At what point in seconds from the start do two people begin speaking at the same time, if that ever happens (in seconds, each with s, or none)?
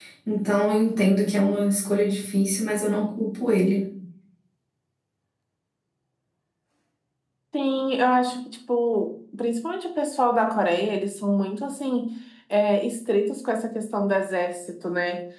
none